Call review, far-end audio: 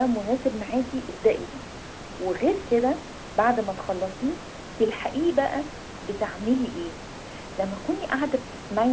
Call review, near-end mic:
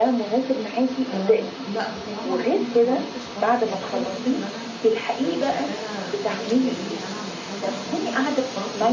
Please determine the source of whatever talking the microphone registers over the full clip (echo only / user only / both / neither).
both